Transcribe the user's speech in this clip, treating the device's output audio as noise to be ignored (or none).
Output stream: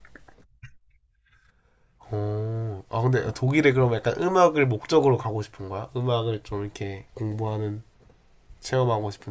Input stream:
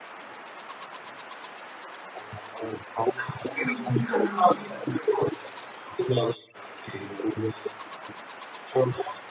응, 진짜, 진짜.